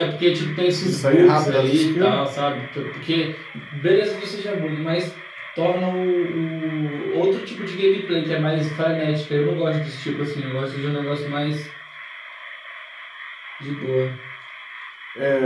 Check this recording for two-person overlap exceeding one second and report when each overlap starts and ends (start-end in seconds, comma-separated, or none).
0.8-2.2